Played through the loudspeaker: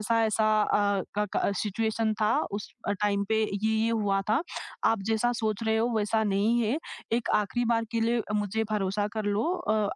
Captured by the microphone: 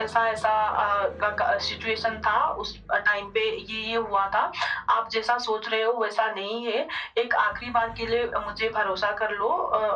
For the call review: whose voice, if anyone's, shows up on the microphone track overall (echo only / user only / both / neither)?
echo only